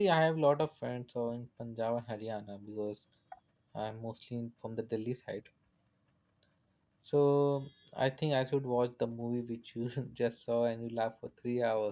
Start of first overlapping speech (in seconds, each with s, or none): none